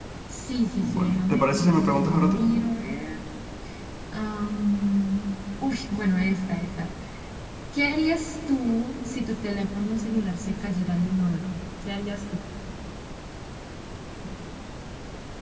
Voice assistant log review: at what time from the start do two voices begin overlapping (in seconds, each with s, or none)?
0.8 s